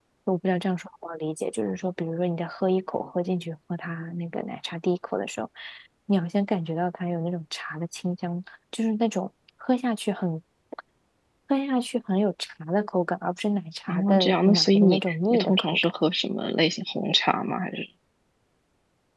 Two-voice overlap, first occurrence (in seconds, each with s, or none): 13.9 s